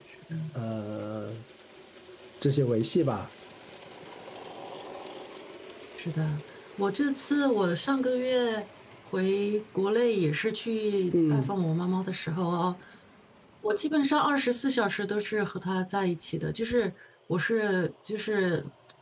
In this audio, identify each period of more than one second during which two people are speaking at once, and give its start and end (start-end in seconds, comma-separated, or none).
none